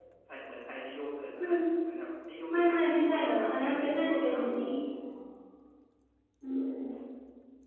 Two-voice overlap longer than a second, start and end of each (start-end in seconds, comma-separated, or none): 2.5-4.5